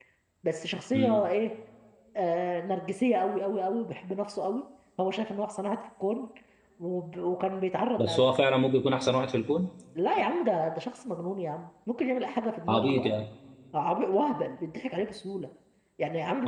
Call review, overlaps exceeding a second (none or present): none